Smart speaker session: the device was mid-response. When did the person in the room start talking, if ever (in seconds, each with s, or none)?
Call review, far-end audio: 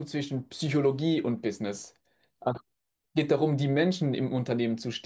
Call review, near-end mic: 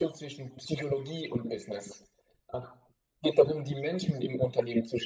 none